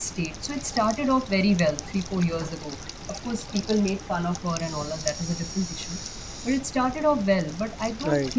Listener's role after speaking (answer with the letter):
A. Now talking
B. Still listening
B